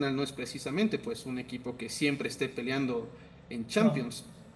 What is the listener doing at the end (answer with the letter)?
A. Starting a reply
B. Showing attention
B